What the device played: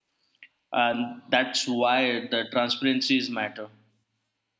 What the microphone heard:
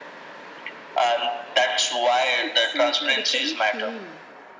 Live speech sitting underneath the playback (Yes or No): Yes